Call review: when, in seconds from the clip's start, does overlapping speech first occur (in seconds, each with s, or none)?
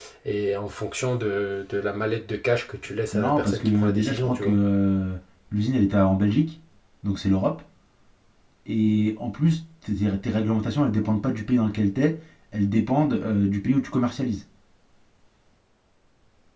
3.1 s